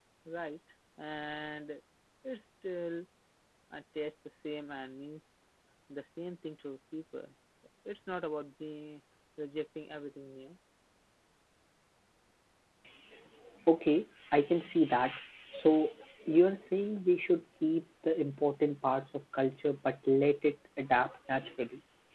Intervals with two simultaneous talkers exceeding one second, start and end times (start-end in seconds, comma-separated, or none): none